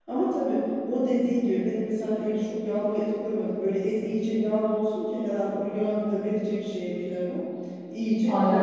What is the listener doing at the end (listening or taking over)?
listening